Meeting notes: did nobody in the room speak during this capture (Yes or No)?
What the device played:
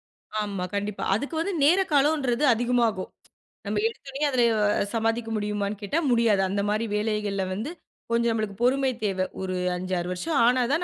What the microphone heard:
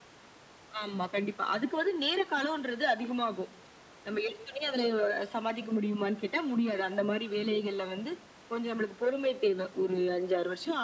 Yes